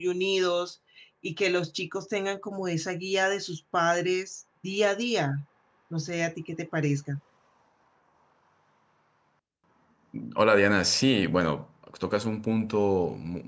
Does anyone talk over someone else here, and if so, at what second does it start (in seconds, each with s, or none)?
none